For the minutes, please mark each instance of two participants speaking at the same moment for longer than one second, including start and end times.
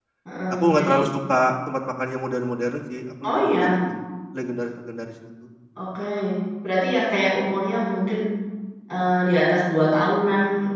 none

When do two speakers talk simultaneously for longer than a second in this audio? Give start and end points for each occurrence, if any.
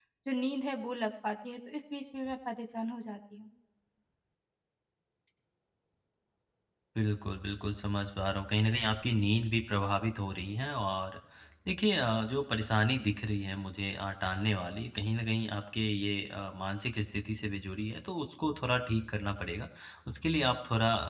none

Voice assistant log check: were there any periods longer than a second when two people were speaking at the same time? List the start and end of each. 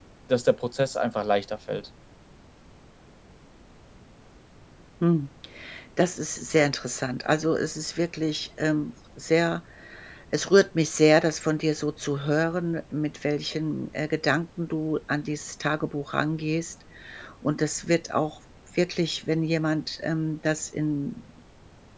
none

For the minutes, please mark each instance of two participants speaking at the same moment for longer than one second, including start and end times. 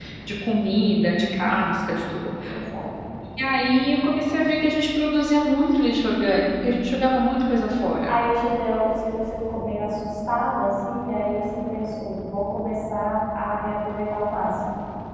none

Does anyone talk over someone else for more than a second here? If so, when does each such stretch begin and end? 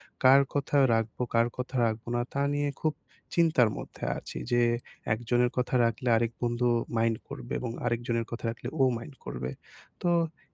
none

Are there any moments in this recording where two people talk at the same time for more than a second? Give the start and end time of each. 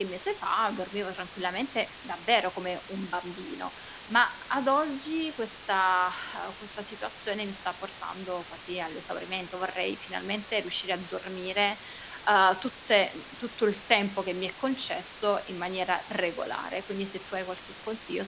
none

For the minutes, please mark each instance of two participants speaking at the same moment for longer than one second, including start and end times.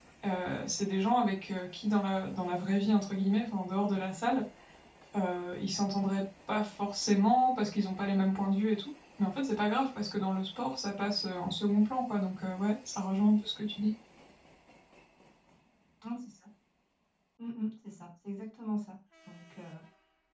none

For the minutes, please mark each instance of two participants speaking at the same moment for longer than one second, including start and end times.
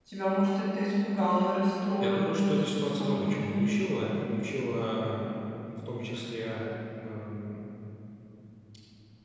2.0-3.7

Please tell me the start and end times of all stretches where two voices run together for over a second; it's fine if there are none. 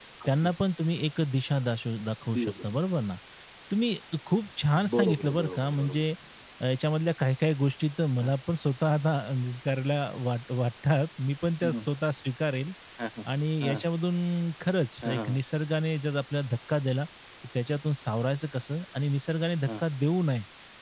4.8-6.0

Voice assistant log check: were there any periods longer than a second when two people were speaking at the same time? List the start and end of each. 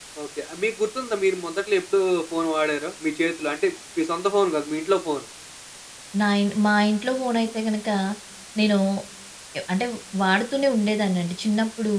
none

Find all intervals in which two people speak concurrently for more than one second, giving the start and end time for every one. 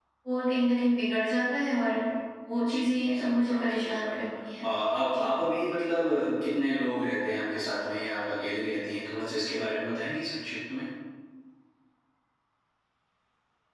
2.6-4.2

